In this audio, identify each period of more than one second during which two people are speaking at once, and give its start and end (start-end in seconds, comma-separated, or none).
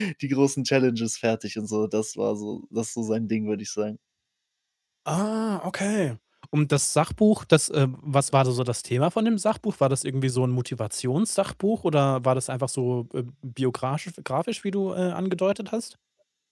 none